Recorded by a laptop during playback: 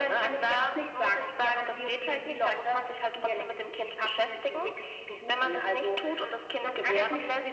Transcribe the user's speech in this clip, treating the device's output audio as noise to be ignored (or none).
none